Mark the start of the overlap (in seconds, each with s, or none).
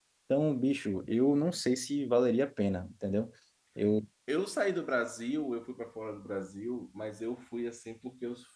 none